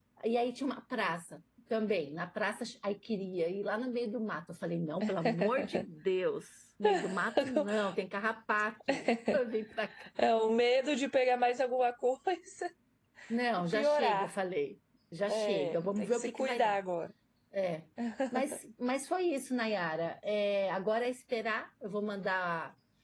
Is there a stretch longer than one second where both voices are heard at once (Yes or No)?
Yes